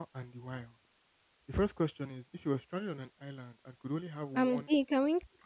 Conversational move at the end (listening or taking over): taking over